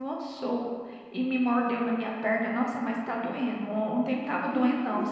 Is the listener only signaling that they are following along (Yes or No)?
Yes